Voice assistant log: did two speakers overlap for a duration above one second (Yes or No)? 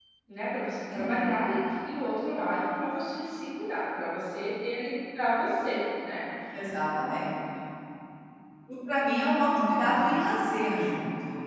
No